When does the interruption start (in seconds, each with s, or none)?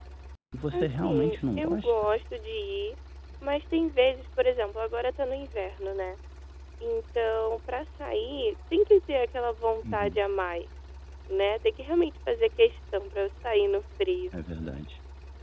0.7 s